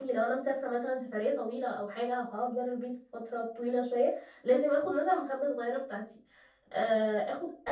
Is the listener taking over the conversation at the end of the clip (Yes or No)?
No